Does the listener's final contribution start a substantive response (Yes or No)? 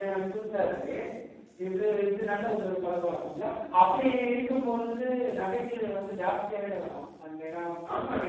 Yes